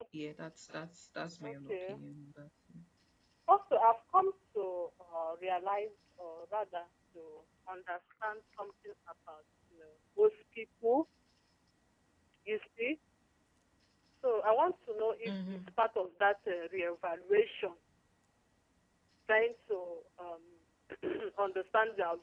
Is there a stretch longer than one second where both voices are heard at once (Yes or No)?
No